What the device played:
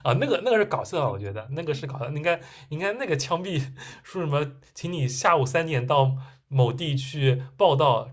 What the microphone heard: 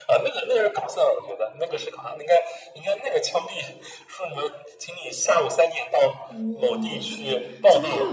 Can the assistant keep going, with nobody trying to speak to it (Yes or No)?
No